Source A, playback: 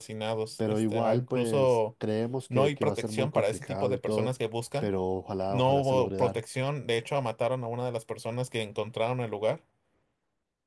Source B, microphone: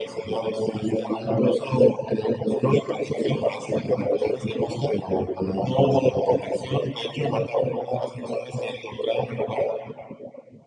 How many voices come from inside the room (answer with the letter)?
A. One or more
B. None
B